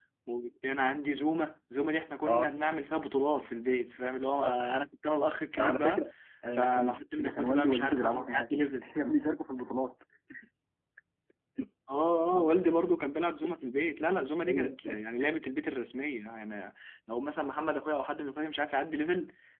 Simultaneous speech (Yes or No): Yes